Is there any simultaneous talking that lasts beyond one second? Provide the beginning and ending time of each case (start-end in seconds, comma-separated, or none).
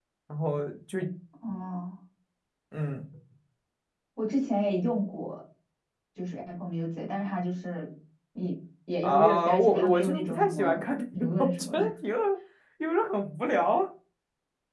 9.0-11.8